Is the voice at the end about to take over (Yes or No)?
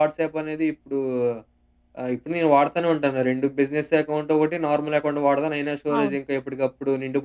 No